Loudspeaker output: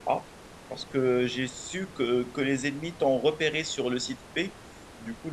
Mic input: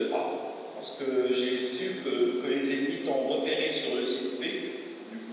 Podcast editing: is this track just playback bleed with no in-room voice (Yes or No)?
Yes